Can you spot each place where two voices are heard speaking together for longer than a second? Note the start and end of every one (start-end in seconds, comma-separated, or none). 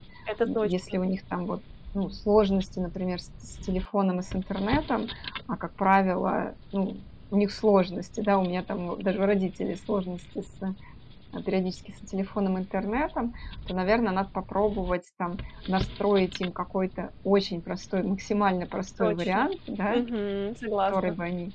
none